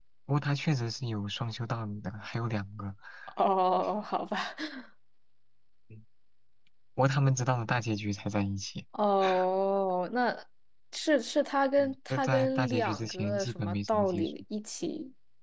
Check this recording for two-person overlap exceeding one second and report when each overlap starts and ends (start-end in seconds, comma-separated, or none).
11.8-14.3